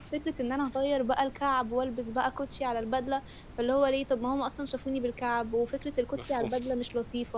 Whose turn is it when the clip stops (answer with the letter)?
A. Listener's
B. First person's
B